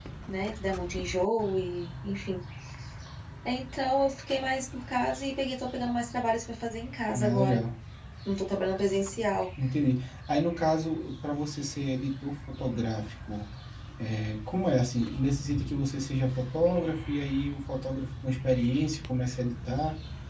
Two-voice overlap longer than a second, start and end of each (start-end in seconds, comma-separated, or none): none